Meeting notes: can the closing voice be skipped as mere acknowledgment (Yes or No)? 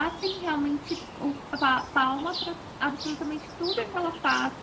Yes